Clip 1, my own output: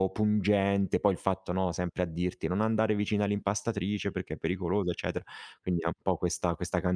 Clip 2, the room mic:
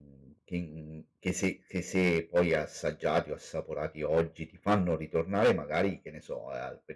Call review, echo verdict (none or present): none